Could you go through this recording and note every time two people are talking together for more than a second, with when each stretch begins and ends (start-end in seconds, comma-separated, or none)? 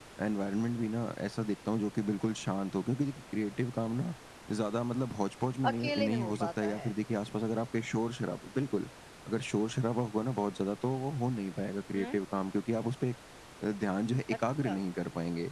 5.7-6.9